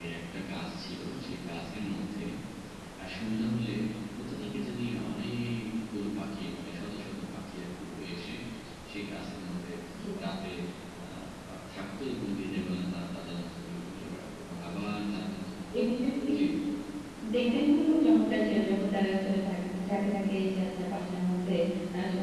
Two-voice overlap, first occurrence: none

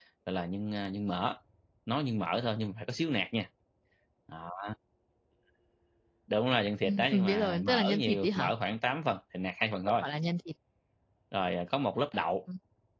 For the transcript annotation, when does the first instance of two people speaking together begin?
7 s

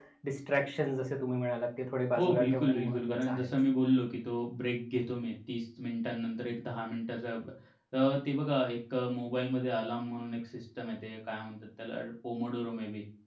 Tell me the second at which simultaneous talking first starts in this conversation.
2 s

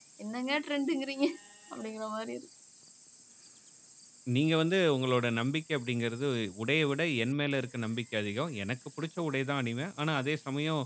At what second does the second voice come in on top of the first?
none

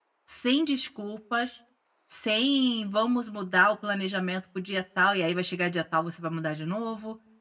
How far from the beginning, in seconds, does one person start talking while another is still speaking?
none

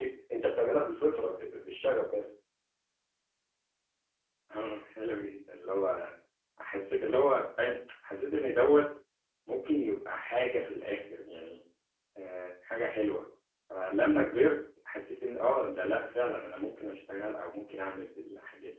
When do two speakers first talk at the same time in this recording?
none

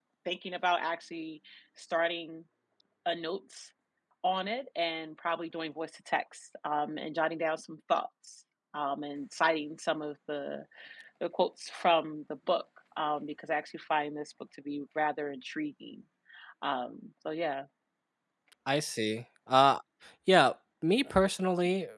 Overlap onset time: none

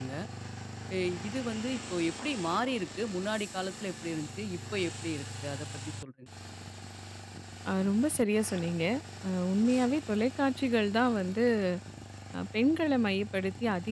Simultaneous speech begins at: none

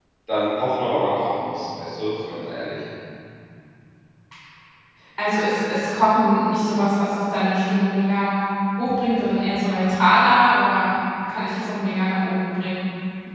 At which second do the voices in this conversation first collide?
none

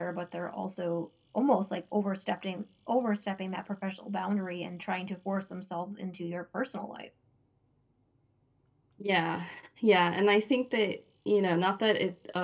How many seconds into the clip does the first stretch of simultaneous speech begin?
none

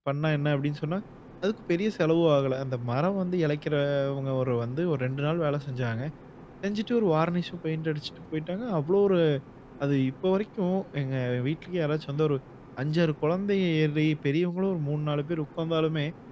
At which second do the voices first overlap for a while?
none

